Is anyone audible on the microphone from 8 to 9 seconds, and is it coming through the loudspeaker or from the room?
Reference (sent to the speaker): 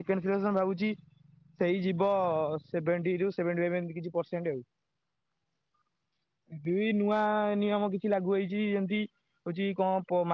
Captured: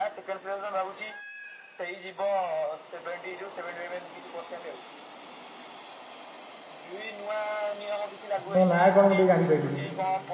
both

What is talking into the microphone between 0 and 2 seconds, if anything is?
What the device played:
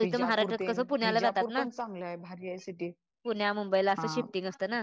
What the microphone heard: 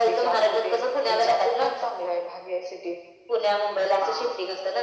echo only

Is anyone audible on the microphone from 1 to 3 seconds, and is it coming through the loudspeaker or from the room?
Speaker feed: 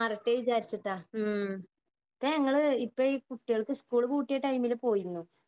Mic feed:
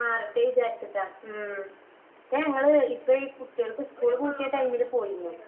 echo only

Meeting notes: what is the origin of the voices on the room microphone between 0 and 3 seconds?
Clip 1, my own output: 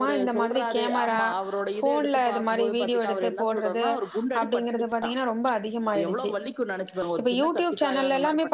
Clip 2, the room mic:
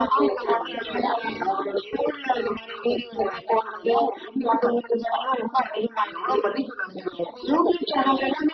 both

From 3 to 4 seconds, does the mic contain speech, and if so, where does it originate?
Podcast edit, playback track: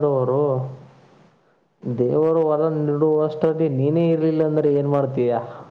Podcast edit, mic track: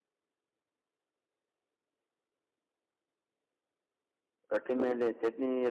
neither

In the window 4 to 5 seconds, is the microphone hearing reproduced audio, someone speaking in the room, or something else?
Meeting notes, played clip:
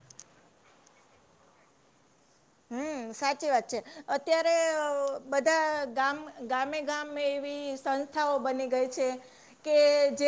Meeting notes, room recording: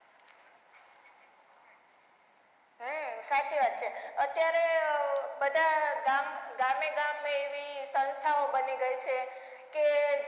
echo only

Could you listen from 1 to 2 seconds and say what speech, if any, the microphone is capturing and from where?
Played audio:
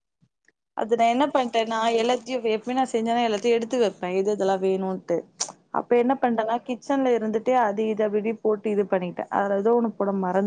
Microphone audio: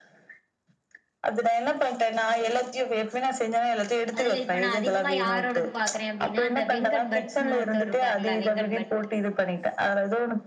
echo only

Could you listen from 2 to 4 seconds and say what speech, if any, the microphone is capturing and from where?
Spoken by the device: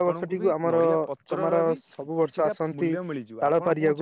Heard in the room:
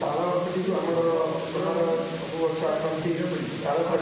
echo only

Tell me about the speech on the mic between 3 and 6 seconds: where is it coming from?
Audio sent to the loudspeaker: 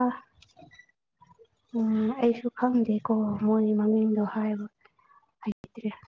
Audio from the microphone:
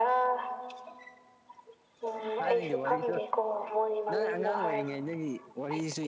both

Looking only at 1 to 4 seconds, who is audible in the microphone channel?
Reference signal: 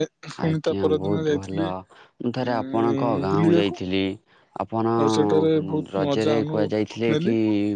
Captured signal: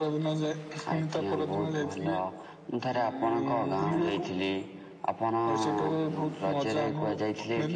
echo only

